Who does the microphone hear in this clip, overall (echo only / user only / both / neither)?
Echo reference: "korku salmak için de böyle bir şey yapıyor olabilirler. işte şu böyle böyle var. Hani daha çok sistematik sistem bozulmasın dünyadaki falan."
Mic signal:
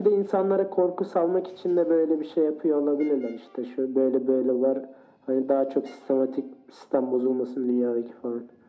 echo only